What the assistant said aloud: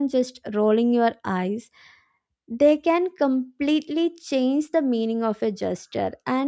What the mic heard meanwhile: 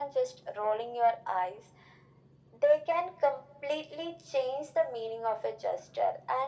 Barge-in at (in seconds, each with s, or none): none